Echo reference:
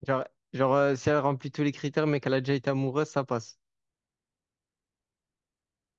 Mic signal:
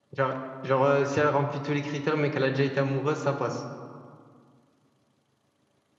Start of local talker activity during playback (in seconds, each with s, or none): none